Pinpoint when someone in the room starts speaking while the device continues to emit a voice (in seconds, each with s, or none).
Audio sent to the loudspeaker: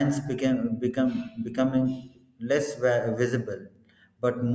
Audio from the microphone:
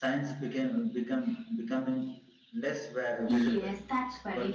3.3 s